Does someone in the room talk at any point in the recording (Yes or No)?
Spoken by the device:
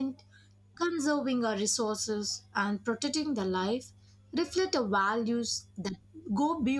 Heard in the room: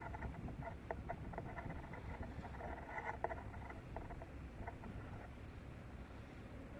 No